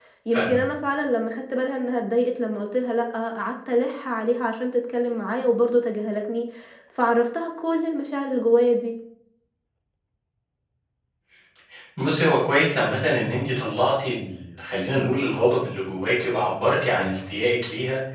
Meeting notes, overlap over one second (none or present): none